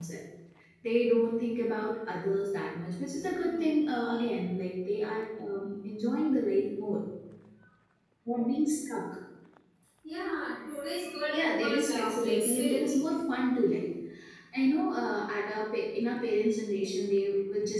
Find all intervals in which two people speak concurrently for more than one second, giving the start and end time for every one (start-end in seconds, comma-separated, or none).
11.5-13.0